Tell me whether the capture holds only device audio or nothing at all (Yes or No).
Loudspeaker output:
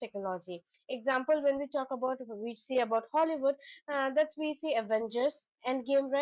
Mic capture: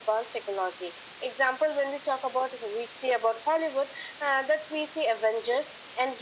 Yes